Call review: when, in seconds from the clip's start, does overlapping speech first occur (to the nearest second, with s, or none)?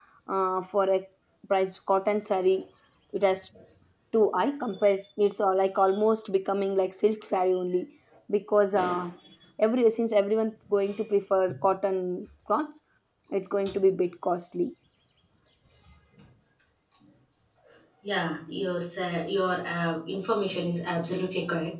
none